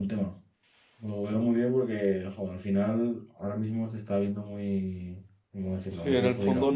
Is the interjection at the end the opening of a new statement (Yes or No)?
Yes